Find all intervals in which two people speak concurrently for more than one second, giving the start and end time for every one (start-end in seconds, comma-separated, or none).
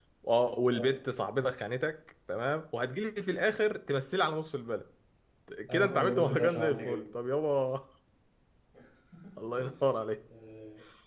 5.7-7.0